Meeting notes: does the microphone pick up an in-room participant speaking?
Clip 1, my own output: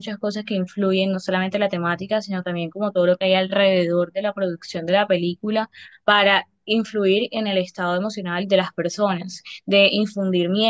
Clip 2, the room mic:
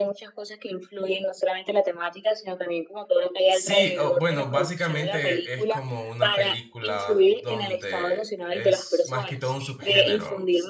Yes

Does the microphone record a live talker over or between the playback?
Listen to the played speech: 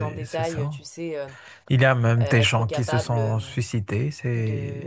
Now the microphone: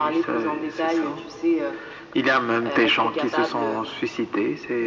No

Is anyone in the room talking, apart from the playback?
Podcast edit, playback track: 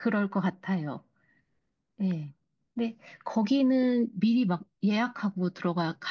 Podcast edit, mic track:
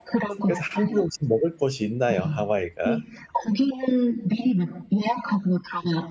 Yes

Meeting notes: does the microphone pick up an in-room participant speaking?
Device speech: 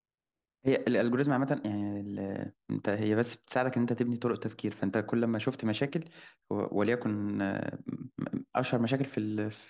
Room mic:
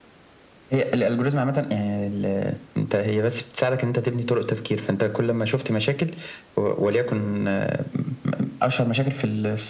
No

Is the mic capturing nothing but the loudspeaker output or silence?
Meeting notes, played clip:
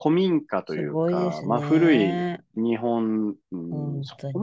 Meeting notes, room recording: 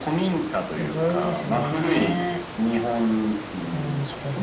Yes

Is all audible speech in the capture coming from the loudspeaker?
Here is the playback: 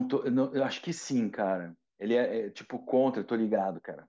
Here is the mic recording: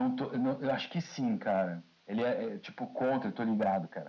Yes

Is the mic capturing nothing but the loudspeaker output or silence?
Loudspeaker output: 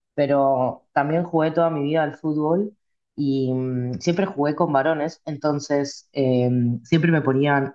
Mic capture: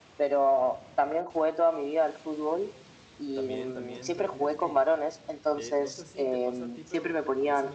No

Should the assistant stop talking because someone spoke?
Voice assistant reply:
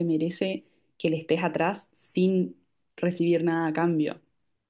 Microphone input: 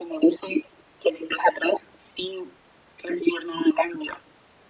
No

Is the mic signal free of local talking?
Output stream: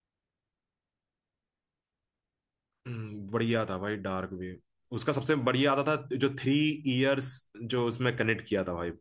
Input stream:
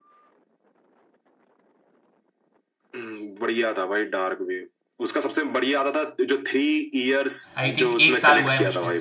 No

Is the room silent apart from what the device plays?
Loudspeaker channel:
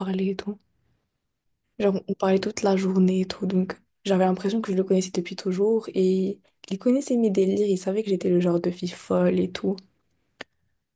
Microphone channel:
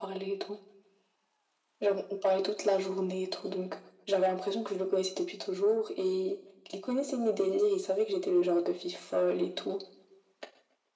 Yes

